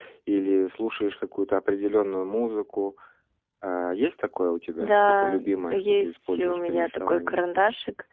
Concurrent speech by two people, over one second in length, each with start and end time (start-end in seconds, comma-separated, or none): 4.8-7.5